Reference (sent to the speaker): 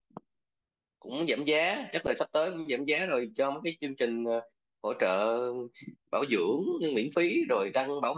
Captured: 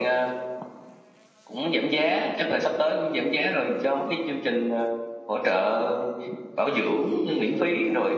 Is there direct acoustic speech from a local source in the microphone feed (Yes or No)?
Yes